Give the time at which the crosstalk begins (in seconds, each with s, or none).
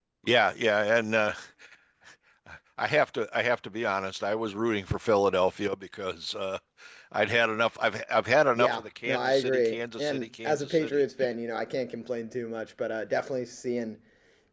8.5 s